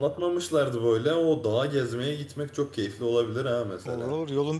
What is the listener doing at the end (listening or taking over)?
taking over